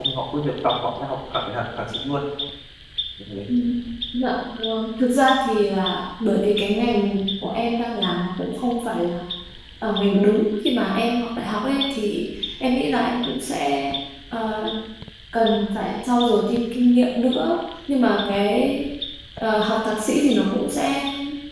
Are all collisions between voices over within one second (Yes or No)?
Yes